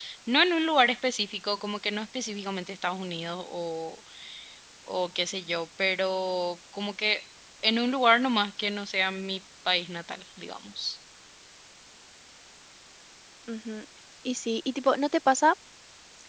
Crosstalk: none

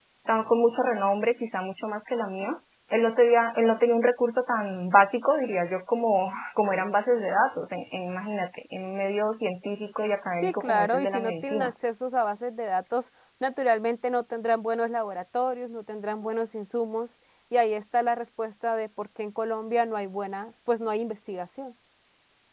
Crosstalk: present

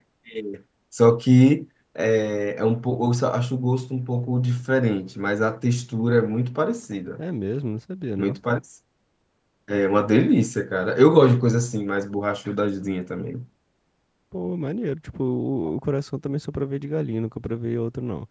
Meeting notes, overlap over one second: none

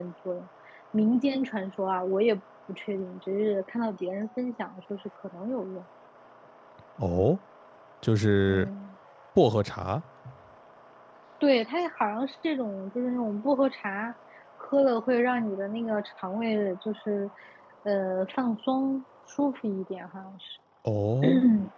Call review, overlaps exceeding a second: none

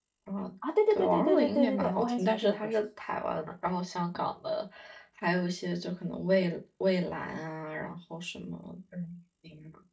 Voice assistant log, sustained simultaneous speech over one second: present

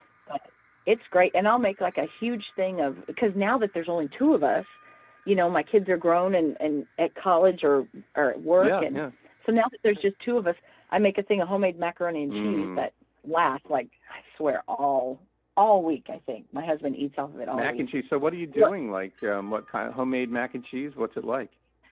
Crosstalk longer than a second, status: none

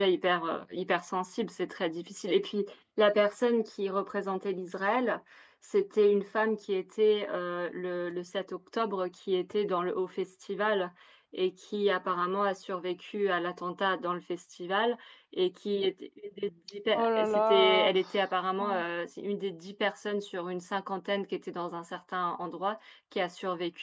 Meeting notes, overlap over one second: present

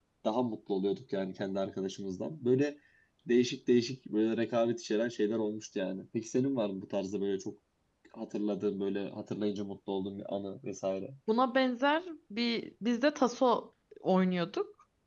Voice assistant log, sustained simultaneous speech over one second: none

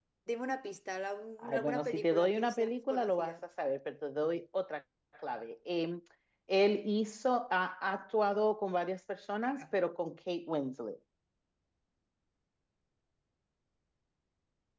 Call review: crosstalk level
present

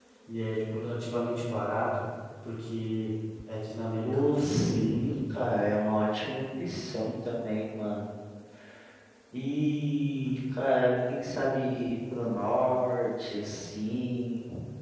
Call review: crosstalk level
present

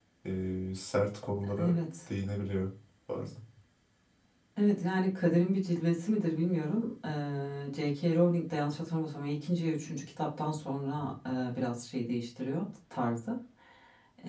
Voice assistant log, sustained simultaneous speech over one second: none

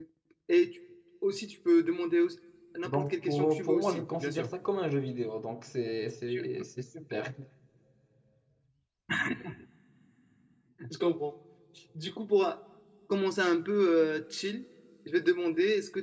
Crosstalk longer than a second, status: present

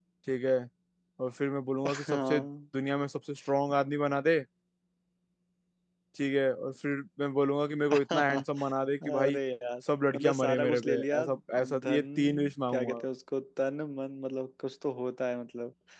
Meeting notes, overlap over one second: present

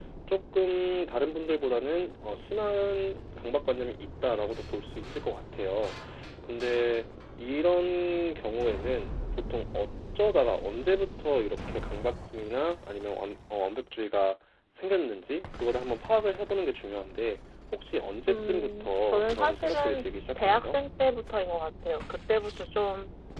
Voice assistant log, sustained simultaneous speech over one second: present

